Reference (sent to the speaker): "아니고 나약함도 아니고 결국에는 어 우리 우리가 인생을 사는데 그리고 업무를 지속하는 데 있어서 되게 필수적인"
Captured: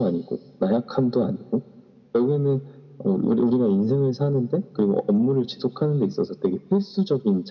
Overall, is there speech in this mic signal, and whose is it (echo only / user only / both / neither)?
echo only